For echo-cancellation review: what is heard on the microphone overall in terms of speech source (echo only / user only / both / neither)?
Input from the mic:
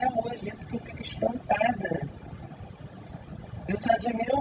echo only